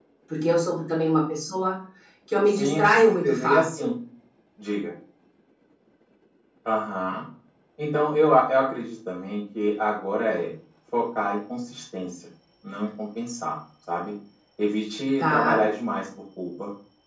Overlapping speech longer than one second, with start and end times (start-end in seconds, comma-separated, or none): 2.5-3.9